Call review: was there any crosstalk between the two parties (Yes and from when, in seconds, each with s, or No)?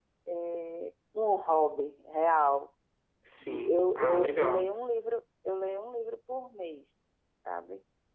Yes, from 3.4 s